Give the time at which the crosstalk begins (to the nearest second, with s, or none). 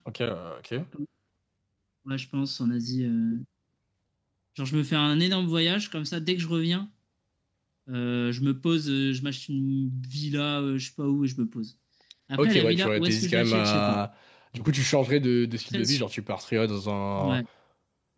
12 s